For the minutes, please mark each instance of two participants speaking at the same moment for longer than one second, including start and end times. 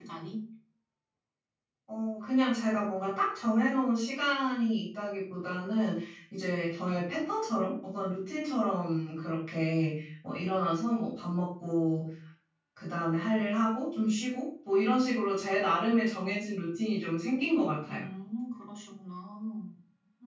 none

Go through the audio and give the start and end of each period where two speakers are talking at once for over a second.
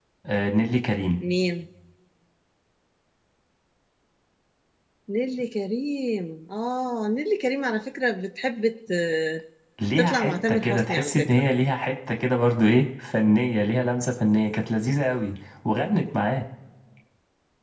10.0-11.4

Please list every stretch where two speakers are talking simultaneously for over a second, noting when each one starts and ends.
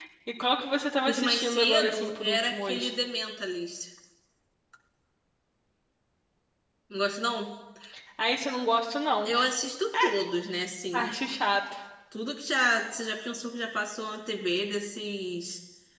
1.1-2.9

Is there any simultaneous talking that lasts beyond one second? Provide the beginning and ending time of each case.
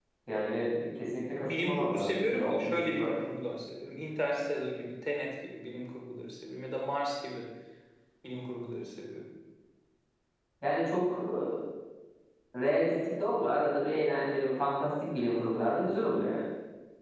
1.4-3.1

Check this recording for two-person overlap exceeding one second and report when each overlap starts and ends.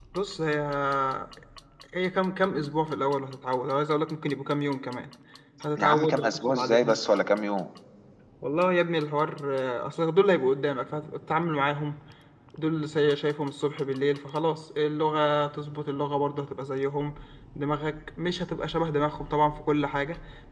5.8-7.0

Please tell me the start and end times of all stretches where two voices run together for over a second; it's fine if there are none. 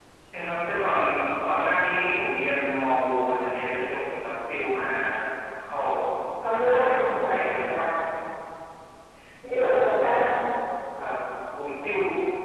6.5-7.8

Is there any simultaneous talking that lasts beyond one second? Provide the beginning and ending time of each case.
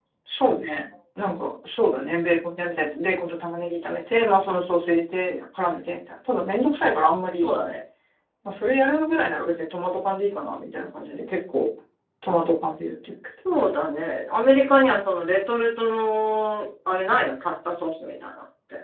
none

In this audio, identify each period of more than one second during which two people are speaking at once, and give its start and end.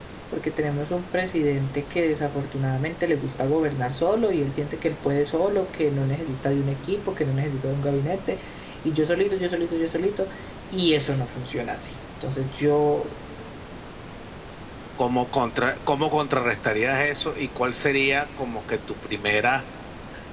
none

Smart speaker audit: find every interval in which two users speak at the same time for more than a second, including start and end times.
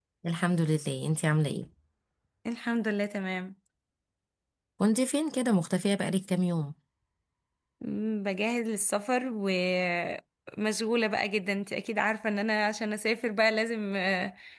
none

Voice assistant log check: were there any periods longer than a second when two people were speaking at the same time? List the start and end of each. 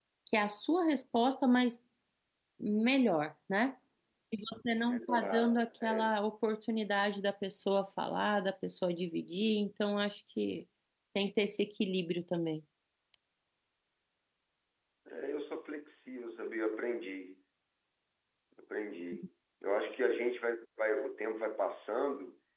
4.9-6.1

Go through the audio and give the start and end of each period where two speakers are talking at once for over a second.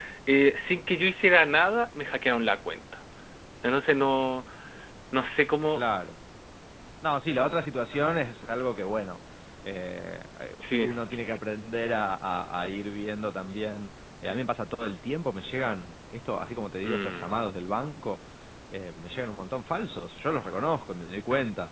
none

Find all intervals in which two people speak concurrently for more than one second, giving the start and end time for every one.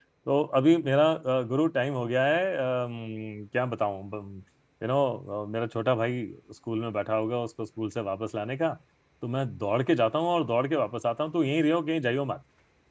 none

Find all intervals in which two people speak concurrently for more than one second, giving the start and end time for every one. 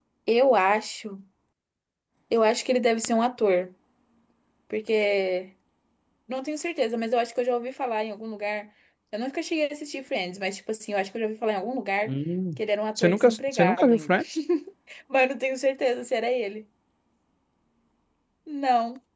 13.0-14.2

